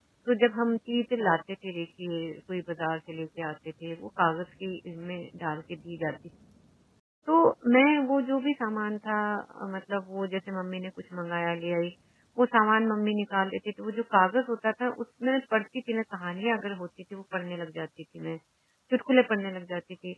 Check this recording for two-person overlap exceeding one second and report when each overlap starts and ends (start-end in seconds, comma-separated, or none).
none